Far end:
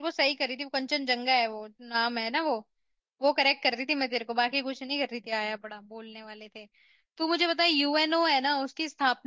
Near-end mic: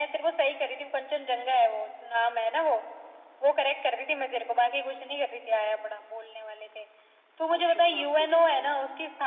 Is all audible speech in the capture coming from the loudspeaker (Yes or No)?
No